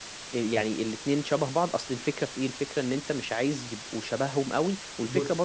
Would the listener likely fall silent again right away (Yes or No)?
Yes